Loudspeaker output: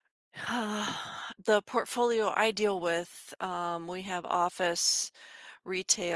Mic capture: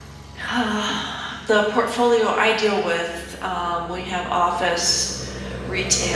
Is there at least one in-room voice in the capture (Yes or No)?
No